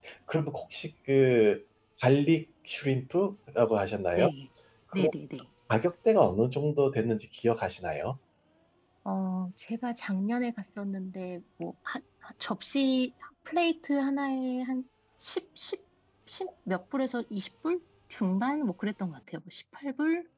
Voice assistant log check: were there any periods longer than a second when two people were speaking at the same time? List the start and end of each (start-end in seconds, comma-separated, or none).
none